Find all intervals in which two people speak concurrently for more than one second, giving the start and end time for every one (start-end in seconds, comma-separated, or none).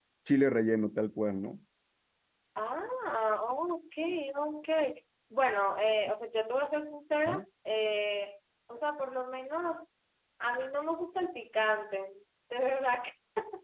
none